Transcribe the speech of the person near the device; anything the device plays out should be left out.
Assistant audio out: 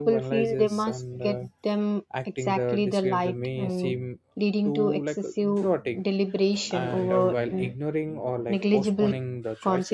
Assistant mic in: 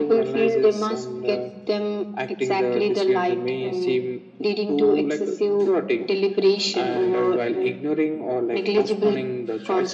none

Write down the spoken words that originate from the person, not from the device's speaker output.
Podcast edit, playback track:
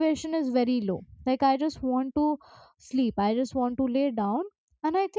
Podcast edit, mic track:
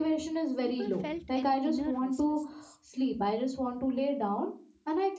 people felt an inner restlessness

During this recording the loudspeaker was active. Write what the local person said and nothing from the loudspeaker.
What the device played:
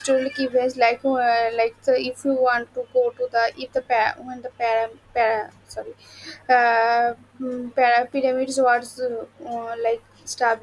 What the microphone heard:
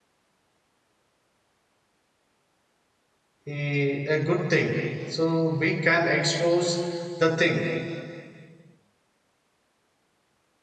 a, a good thing. So we can expose the thing.

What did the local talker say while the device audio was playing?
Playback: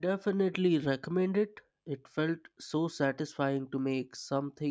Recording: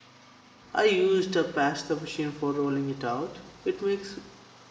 I used a pasta machine for rolling it out. It makes

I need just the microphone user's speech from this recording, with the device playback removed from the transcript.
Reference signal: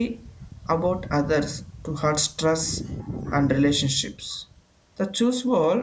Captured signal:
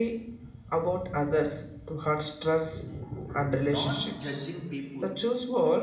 not judging people

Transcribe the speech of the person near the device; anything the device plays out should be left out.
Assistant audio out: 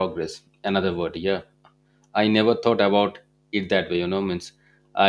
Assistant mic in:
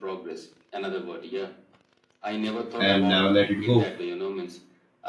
and never let it go.

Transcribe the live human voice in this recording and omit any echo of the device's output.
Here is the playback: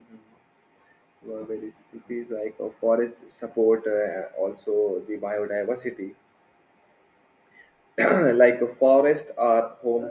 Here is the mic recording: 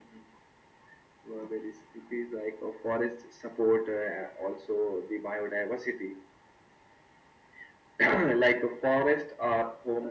none

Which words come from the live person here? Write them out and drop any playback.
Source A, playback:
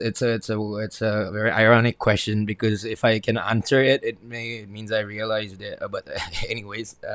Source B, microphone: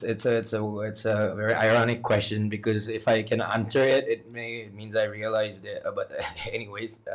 none

